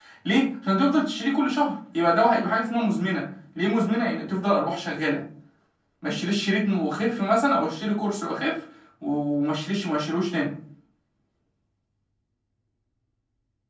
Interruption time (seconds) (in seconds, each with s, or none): none